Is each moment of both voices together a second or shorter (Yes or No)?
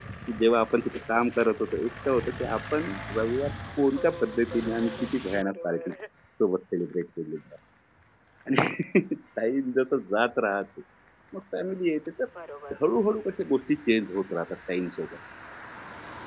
No